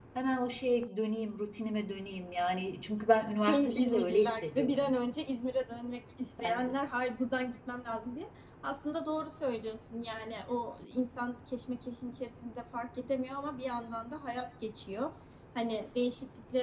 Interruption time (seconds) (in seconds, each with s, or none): 3.4 s